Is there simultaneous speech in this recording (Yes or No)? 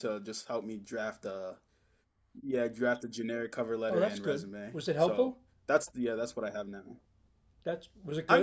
Yes